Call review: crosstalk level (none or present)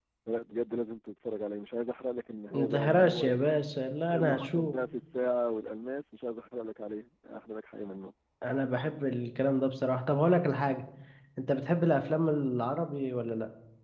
present